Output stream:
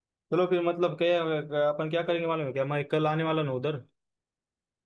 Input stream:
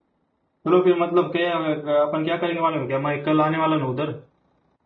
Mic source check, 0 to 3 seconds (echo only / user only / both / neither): echo only